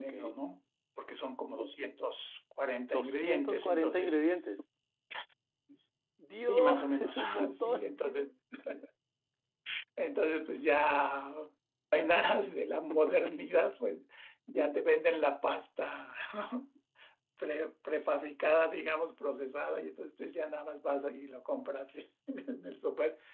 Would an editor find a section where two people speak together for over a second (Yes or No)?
Yes